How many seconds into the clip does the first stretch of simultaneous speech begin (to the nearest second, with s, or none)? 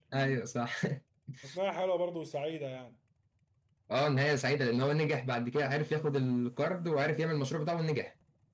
none